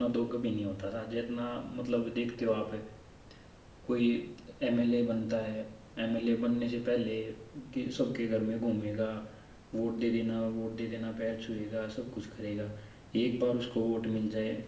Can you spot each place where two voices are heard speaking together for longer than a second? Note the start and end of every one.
none

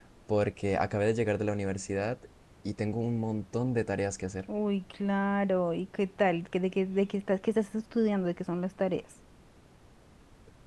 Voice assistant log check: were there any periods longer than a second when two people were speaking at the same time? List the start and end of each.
none

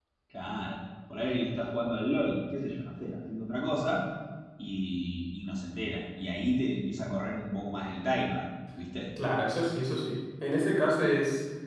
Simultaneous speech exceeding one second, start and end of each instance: none

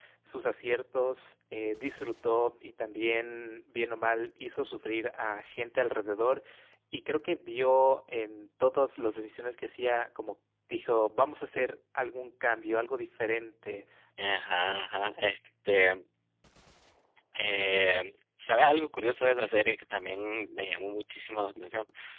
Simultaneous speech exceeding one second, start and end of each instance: none

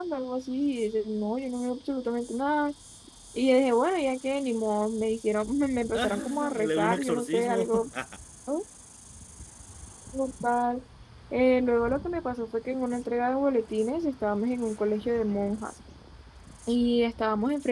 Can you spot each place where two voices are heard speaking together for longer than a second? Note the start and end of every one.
5.9-7.7

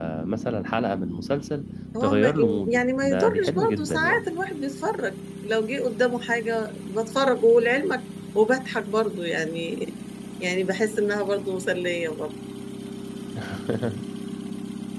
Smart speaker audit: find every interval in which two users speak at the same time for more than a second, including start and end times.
2.0-4.2

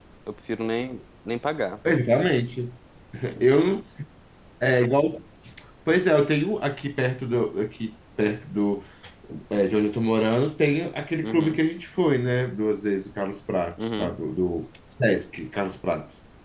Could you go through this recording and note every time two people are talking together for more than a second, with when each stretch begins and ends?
none

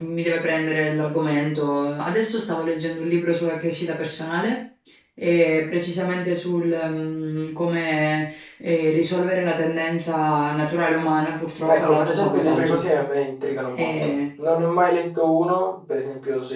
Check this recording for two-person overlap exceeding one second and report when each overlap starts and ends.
11.7-12.9

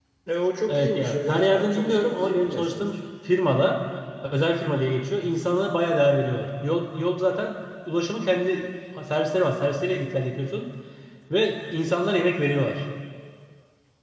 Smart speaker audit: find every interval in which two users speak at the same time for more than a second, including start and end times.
0.7-2.8

